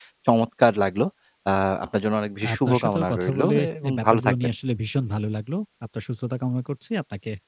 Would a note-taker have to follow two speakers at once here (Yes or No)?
Yes